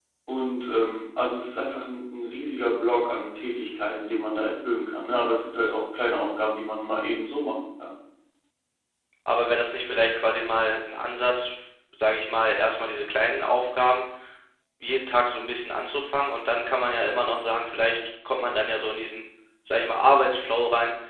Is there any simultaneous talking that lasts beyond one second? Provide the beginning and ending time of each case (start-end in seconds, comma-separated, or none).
none